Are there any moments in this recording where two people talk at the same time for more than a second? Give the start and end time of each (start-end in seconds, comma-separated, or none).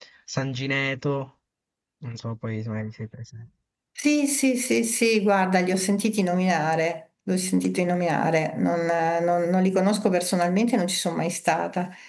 none